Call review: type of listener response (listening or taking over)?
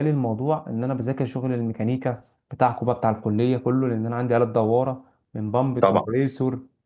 listening